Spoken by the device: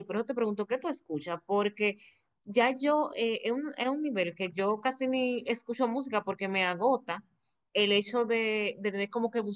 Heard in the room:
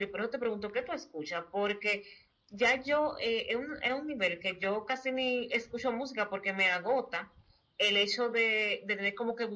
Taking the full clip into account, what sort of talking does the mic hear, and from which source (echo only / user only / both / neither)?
echo only